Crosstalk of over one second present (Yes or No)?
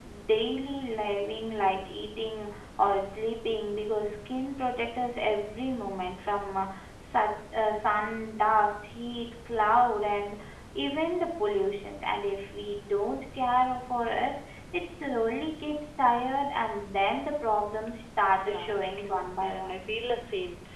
Yes